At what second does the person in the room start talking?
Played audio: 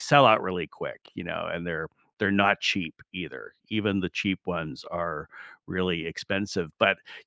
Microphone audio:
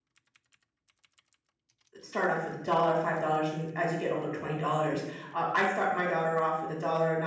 2.0 s

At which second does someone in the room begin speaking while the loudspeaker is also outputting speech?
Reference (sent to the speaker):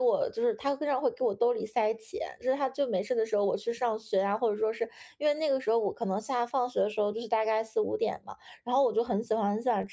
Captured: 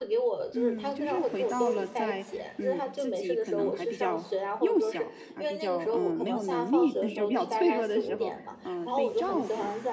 0.5 s

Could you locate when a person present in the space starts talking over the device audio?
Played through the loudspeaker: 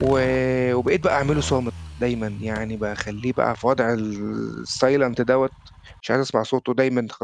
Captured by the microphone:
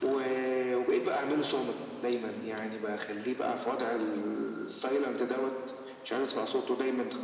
none

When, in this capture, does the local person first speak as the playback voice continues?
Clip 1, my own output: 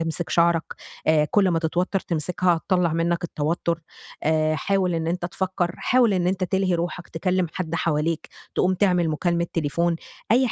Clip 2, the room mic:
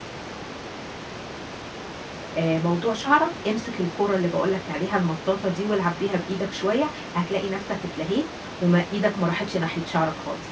2.4 s

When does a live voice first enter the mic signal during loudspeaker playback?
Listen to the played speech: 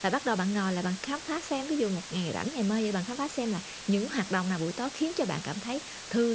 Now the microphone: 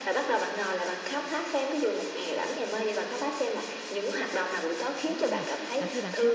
5.0 s

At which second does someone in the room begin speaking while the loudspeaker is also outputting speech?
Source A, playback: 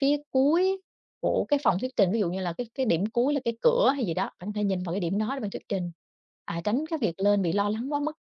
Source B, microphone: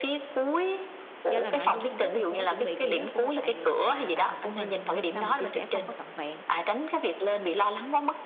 1.3 s

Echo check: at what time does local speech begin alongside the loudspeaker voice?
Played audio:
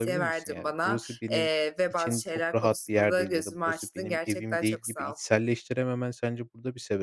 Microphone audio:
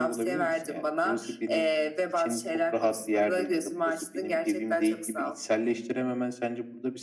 none

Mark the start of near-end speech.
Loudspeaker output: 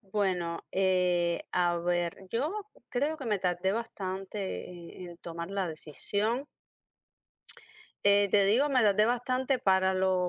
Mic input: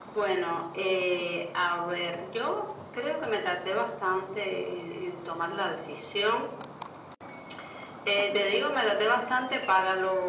none

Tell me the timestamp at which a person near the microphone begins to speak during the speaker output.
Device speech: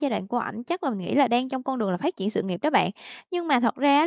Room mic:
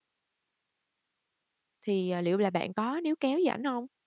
1.9 s

